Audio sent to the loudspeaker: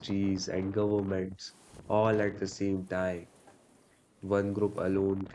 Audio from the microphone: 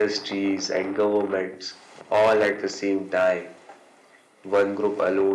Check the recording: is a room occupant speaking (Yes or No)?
No